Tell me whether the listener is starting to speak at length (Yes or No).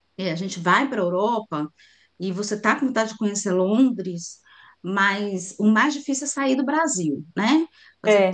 Yes